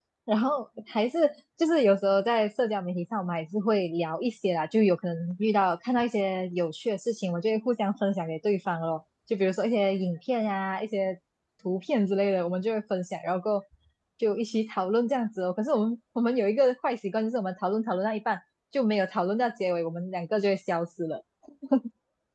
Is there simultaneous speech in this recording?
No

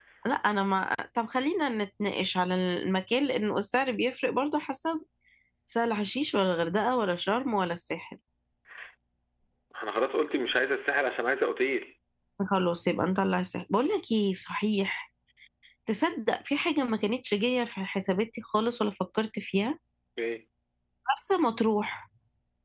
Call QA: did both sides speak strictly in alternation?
Yes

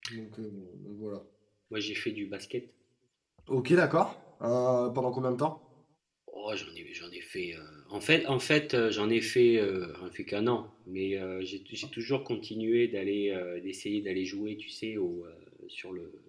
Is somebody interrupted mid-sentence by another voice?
No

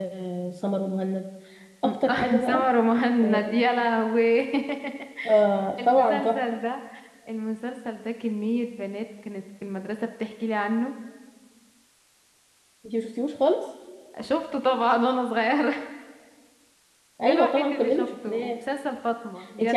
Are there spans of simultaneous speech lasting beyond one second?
Yes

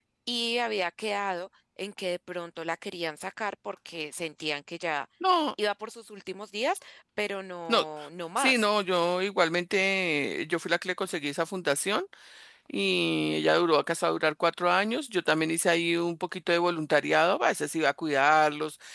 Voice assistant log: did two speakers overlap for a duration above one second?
No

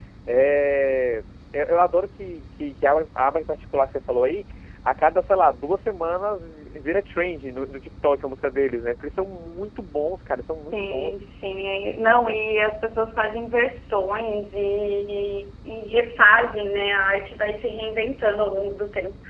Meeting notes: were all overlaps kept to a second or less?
Yes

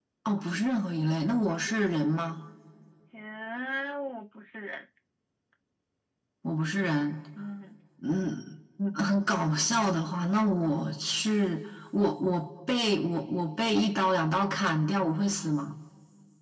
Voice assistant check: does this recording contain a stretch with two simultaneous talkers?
No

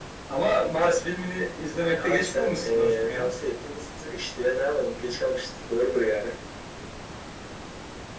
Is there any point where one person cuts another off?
Yes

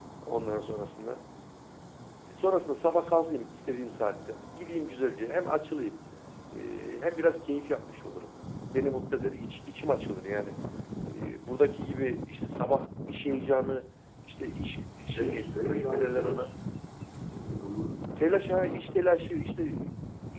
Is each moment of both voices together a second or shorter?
No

